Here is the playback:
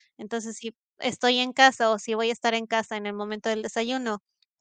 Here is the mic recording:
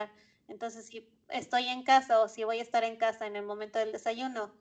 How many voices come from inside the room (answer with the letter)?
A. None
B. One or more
A